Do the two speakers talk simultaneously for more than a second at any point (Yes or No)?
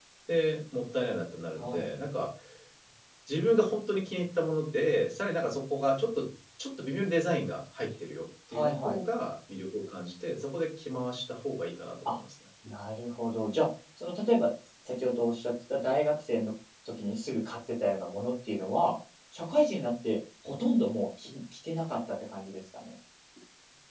No